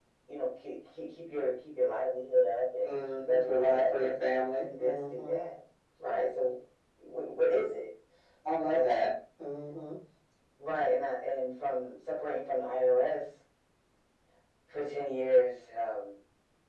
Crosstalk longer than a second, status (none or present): present